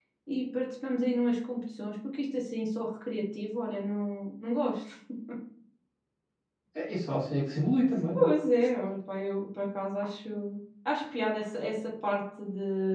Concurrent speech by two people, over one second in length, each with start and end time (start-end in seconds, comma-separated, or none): none